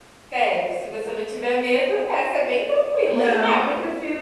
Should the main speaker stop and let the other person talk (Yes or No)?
Yes